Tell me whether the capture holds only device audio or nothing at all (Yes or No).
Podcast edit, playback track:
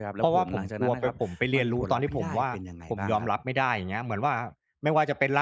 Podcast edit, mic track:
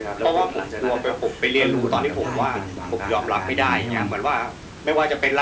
No